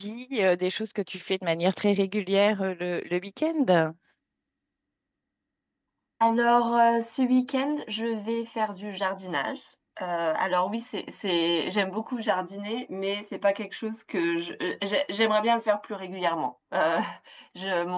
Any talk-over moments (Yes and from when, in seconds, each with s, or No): No